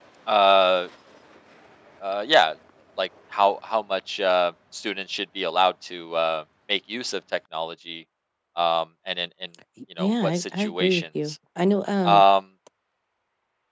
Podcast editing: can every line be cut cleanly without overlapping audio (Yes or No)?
No